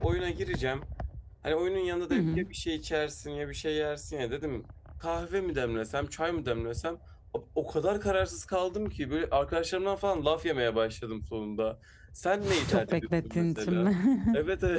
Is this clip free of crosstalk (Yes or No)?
No